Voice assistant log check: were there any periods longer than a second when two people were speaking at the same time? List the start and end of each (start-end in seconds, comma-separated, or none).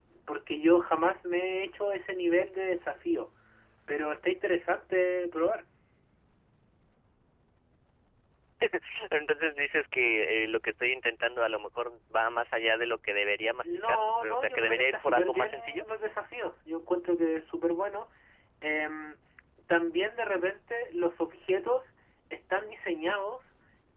13.6-15.8